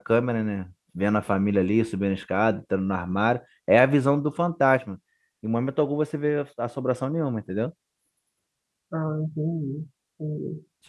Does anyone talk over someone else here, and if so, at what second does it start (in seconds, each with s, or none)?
none